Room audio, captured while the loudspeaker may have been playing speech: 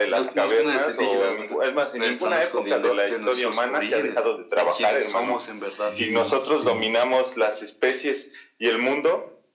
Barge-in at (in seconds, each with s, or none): 5.5 s